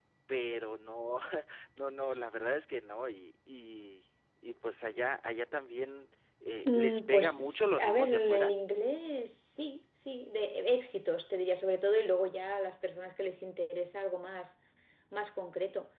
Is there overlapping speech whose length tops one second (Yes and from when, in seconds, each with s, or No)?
Yes, from 6.6 s